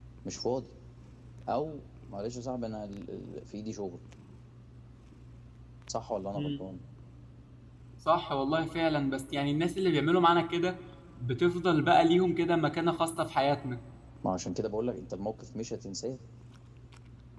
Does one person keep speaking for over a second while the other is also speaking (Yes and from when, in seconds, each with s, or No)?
No